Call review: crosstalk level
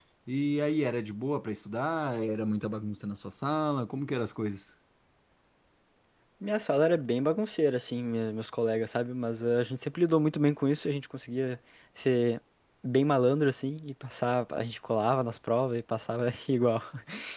none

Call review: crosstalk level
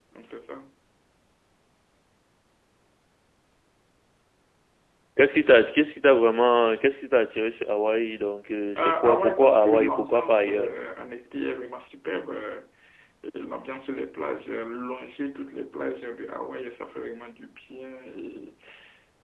present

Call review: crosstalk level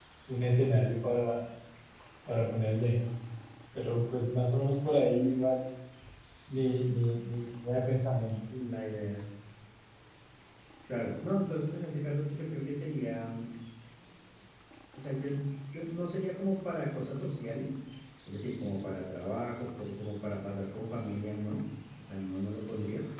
none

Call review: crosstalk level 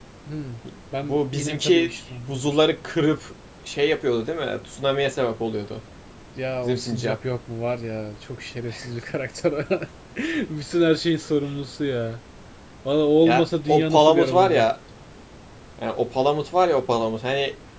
present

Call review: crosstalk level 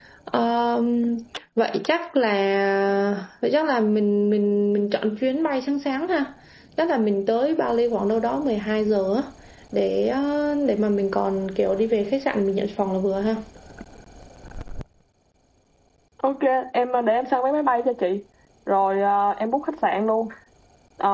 none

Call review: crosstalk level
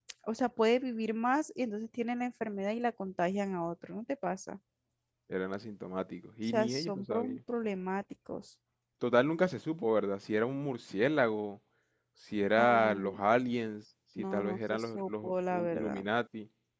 present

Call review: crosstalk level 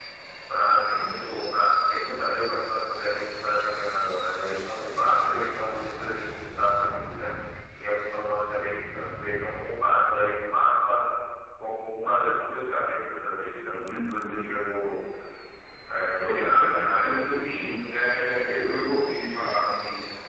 present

